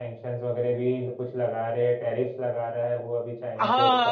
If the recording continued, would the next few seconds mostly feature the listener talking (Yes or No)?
Yes